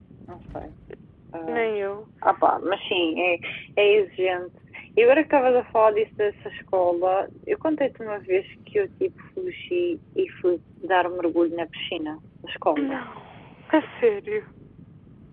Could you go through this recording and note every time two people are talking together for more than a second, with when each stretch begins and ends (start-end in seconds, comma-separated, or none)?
none